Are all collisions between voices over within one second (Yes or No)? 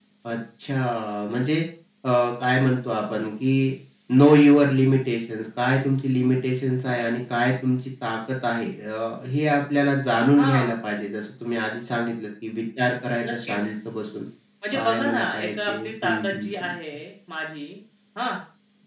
No